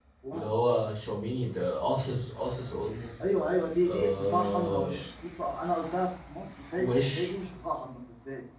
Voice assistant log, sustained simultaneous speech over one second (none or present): present